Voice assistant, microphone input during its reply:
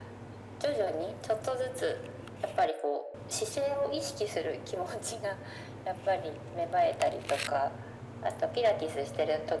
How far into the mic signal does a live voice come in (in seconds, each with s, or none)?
none